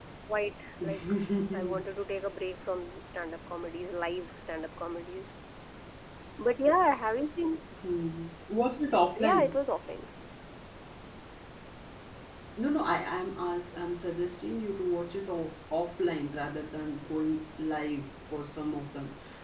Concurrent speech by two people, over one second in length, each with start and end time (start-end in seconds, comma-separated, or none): none